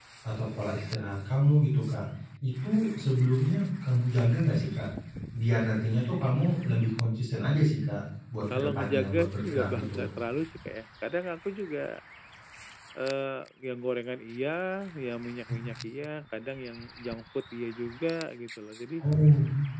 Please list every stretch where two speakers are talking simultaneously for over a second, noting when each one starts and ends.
8.5-10.1

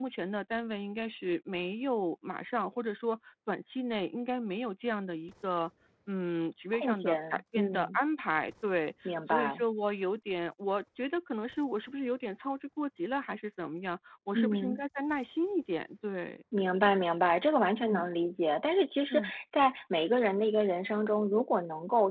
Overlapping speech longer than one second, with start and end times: 6.7-8.0

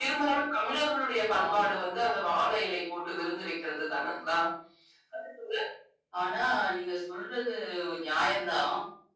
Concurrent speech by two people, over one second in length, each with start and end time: none

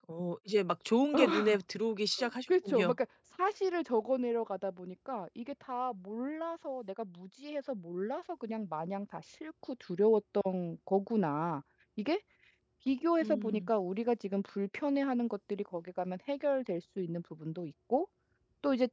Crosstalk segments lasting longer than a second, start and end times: none

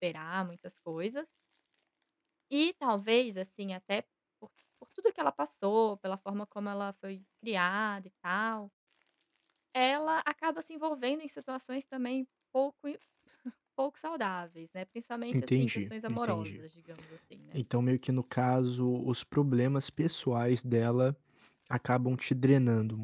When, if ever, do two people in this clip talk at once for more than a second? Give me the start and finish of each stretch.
15.3-16.6

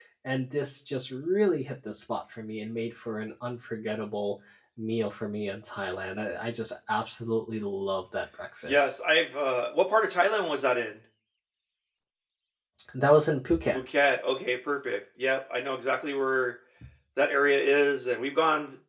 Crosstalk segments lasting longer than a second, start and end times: none

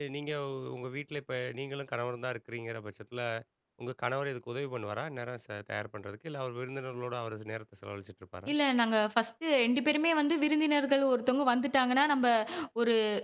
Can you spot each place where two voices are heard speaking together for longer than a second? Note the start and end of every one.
none

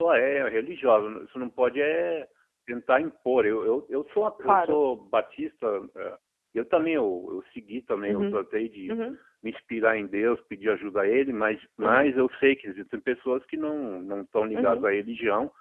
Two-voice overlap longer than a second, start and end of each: none

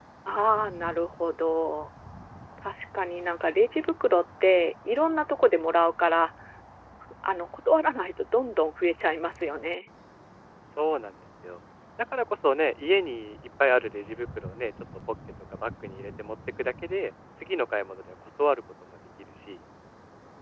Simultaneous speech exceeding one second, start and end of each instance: none

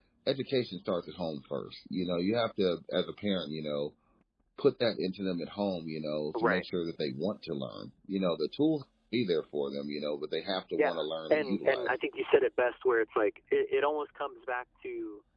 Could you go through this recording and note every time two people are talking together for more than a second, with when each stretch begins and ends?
10.7-12.0

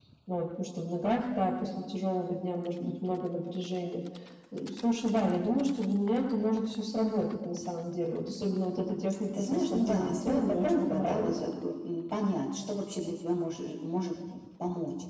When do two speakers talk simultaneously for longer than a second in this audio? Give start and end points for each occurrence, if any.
9.3-11.3

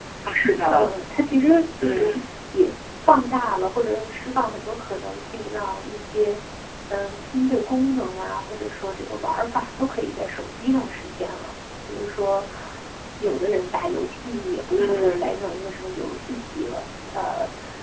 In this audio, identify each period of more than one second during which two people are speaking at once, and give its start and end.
none

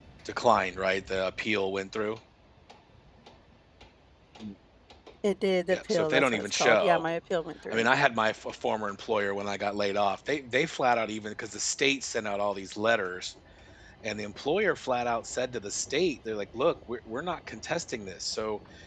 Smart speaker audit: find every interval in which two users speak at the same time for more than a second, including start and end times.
5.7-7.0

